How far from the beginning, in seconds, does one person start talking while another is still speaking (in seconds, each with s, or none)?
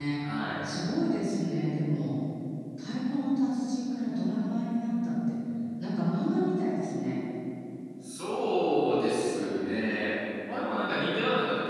none